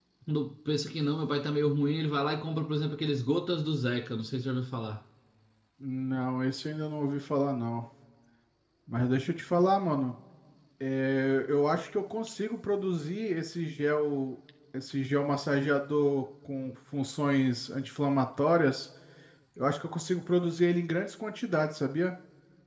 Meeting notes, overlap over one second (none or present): none